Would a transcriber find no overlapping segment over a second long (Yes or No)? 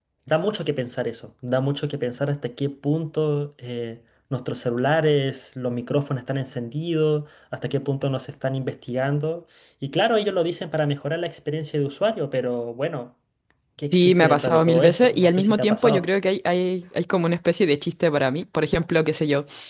No